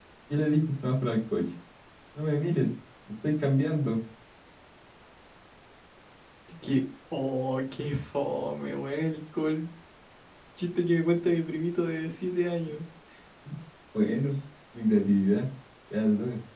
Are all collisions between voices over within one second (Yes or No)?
Yes